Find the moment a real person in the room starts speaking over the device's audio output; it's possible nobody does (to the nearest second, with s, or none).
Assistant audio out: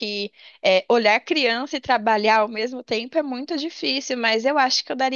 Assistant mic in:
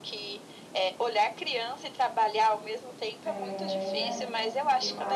3 s